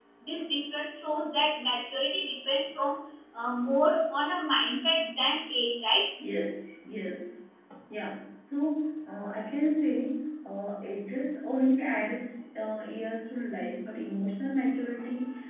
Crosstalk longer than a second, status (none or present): none